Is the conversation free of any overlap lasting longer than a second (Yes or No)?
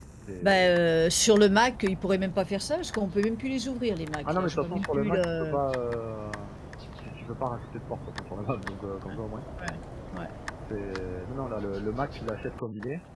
No